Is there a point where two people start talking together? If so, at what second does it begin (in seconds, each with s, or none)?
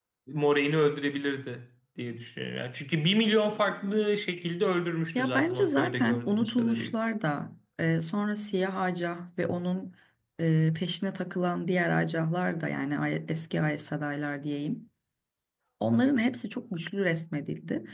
5.2 s